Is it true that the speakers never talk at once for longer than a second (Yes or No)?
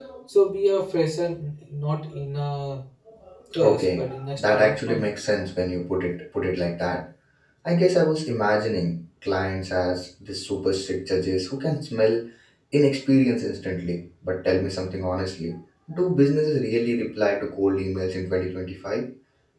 No